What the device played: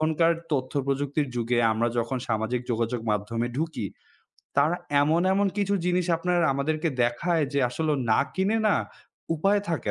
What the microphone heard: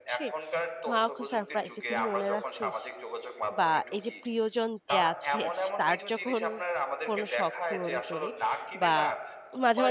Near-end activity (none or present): present